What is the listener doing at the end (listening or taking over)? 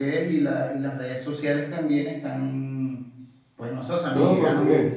listening